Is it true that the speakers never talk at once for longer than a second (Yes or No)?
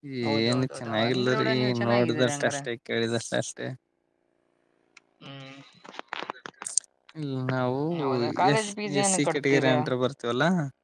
No